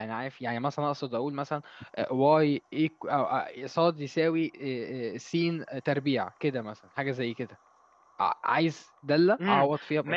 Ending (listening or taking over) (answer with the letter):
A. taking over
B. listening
A